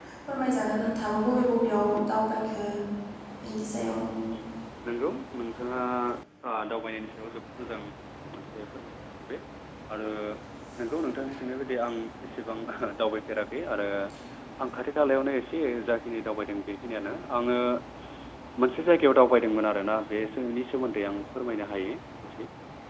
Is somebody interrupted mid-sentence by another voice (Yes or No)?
No